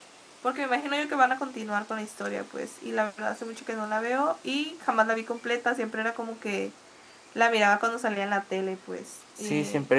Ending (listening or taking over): taking over